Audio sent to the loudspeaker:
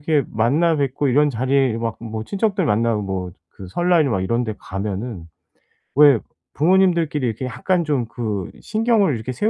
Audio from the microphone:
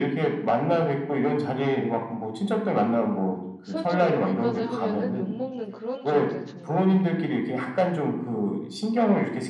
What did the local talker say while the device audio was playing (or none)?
설정 이렇게까지 하면은 욕먹는 그런 정도의 정말